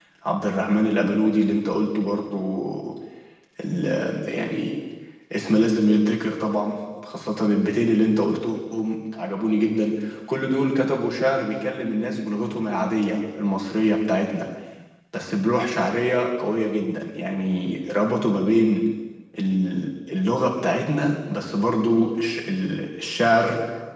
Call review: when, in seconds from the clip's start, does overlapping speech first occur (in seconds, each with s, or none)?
none